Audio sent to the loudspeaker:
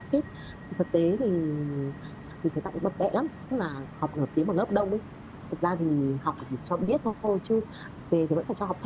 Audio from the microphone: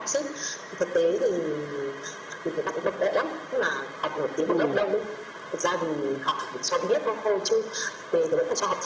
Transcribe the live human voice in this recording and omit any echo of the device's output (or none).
ừ